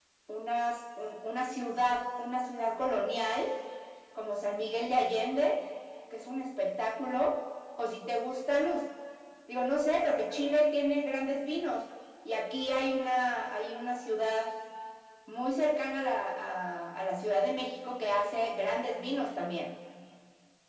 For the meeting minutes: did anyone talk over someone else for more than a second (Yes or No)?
No